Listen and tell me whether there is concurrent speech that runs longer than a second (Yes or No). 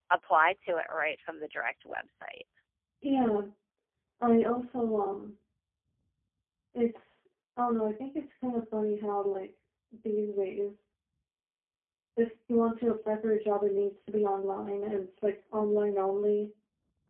No